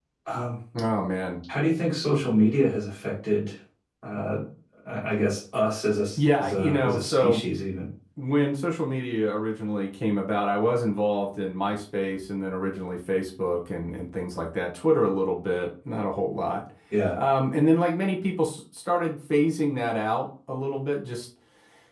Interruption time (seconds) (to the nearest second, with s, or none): 6 s